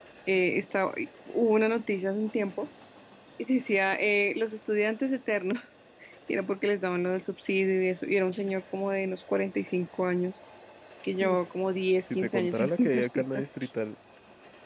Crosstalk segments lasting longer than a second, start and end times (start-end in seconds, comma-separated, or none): 12.2-13.4